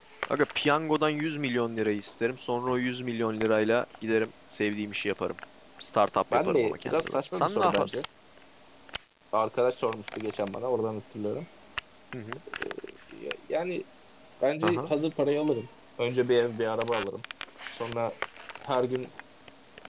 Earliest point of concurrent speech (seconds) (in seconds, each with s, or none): 6.3 s